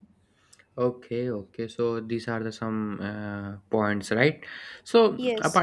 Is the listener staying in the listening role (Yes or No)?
Yes